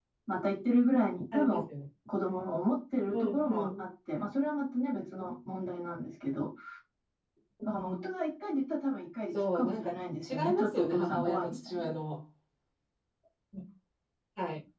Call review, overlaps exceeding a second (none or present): present